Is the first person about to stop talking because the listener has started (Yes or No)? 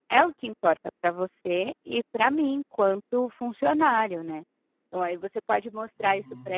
No